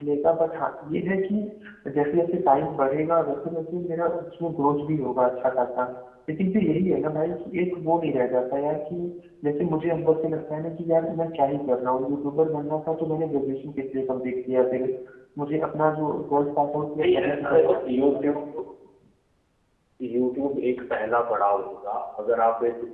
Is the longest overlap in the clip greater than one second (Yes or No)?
Yes